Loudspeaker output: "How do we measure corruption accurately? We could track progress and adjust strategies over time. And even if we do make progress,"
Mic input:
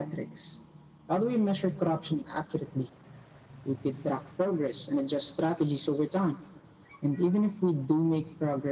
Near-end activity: none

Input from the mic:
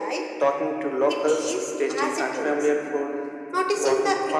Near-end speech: none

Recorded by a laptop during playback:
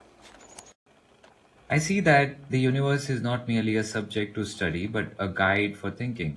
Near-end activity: present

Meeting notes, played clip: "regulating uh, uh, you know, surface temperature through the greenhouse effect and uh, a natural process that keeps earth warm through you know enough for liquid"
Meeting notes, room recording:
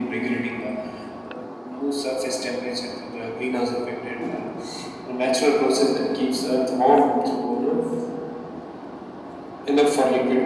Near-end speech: none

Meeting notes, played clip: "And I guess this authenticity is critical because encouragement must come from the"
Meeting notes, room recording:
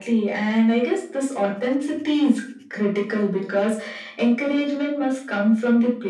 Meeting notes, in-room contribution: none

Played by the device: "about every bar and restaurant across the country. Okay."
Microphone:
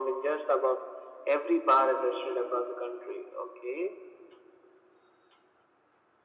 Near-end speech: none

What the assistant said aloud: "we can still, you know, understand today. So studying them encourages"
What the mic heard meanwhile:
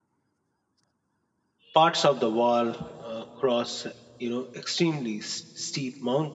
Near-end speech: present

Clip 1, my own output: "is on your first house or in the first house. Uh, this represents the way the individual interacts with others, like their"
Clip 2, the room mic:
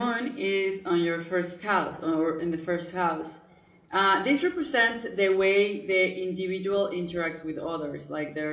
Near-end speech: none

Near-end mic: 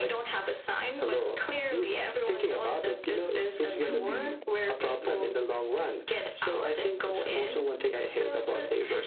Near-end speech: present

